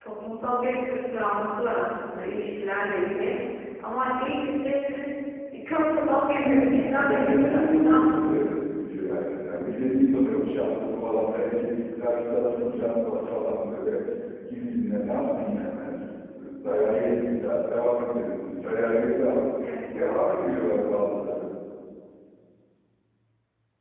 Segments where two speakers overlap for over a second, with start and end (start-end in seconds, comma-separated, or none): 6.4-8.3